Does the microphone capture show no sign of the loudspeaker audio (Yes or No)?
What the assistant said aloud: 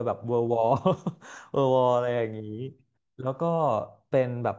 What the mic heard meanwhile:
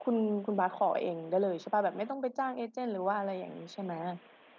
Yes